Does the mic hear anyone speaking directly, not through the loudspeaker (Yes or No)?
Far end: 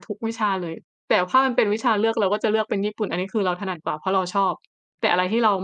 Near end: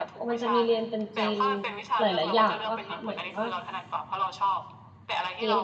Yes